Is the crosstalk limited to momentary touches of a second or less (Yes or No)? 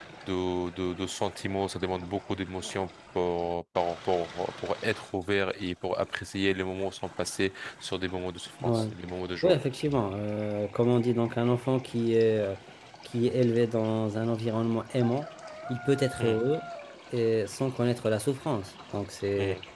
Yes